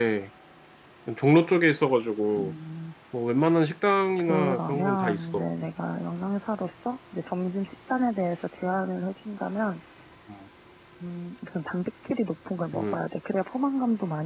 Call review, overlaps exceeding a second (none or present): present